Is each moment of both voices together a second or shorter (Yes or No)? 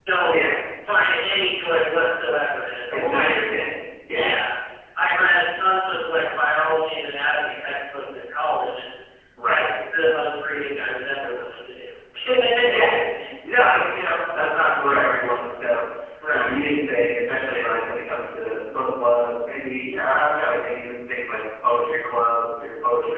Yes